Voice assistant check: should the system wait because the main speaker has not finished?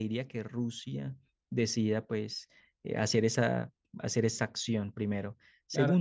No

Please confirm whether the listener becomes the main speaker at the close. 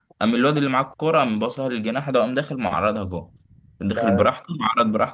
No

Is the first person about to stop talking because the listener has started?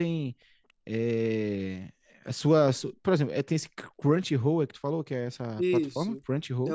Yes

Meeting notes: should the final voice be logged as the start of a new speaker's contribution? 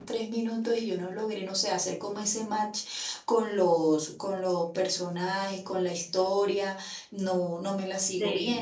Yes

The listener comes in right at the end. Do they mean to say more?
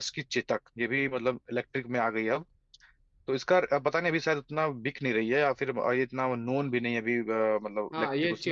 Yes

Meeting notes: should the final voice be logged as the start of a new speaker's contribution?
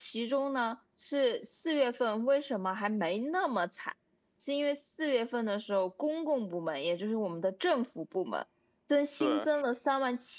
No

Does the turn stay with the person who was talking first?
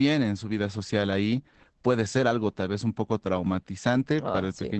Yes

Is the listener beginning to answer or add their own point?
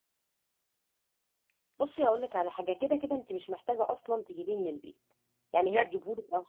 No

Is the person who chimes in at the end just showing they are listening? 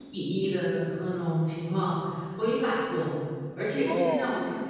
Yes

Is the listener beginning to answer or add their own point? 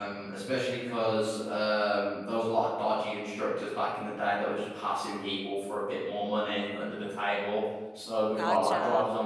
No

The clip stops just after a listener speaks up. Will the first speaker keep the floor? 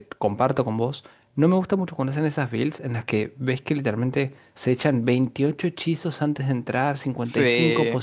Yes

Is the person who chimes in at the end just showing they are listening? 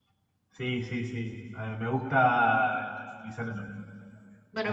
No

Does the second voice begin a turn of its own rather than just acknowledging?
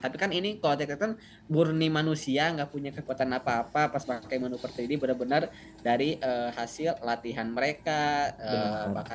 No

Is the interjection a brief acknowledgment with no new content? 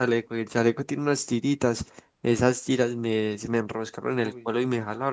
Yes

